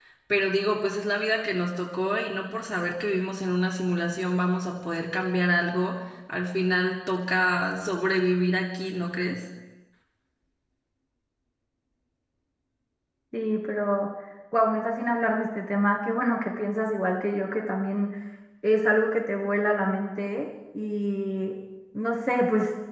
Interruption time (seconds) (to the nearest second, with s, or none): none